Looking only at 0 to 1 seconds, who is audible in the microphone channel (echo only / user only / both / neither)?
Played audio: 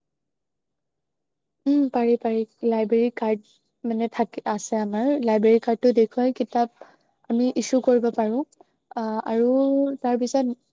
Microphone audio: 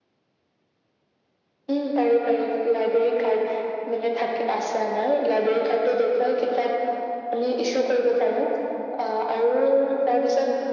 neither